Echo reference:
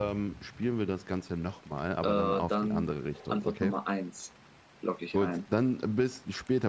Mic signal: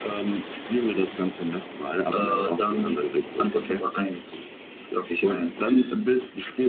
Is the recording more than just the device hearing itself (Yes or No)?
No